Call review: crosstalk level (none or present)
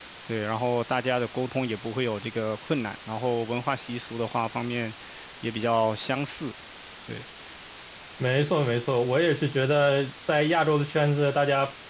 none